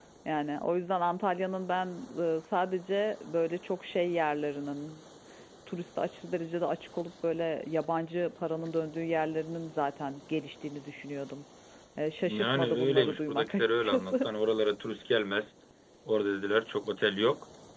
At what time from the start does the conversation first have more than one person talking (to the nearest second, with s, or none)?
12 s